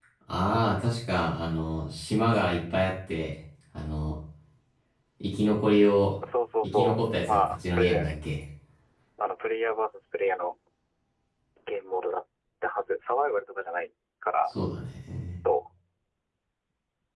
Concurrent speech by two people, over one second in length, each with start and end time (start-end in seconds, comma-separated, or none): 6.6-8.1